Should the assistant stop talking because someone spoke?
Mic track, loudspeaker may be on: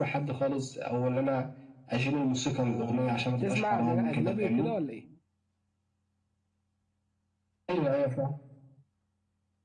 Yes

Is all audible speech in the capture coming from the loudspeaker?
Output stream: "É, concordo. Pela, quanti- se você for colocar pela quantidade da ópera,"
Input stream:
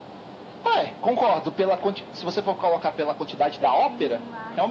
No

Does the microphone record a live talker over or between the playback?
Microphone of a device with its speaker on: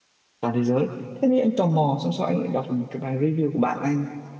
Yes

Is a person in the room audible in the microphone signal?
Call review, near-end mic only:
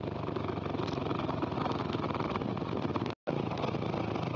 No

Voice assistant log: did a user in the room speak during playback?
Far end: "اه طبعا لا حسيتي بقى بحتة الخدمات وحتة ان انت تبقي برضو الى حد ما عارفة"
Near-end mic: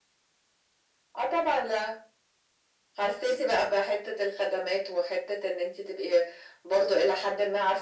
No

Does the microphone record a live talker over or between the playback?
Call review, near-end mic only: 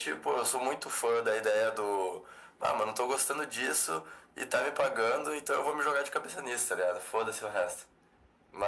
No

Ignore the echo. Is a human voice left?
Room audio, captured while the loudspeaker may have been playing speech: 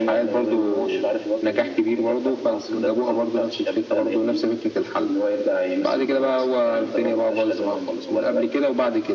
No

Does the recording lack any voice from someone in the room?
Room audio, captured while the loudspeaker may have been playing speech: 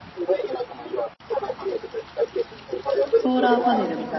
No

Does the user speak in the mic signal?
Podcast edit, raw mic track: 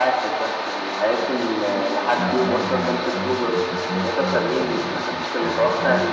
Yes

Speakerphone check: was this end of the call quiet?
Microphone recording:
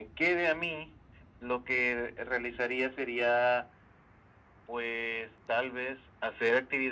Yes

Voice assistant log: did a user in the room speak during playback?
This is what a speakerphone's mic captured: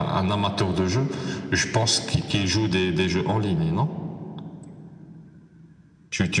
No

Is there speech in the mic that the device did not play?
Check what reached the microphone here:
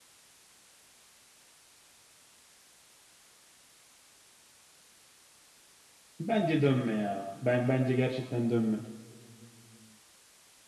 Yes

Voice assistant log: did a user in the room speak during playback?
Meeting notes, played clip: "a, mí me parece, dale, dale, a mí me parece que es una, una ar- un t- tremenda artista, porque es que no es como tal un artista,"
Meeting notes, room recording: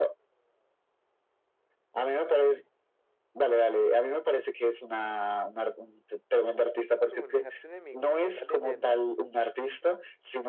Yes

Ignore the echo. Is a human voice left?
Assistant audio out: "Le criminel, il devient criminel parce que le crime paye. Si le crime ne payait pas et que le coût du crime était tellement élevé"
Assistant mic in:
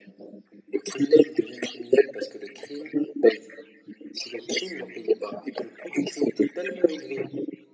No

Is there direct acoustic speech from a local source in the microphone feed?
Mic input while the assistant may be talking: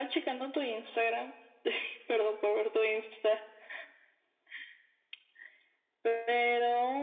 No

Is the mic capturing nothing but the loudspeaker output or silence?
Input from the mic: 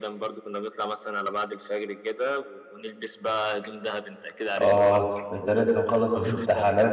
No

